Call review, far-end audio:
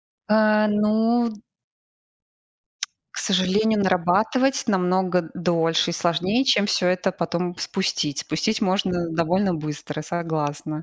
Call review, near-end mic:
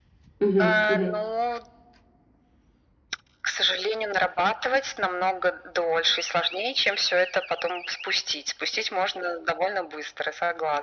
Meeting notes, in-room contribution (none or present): present